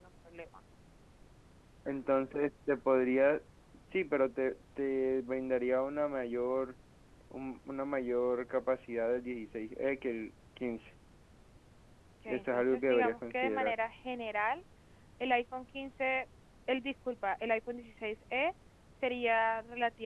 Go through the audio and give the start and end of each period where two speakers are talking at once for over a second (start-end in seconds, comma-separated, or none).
12.3-13.8